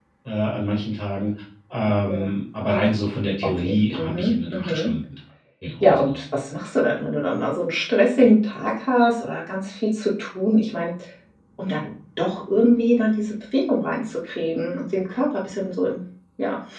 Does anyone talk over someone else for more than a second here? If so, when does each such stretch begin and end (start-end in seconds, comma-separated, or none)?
3.4-4.9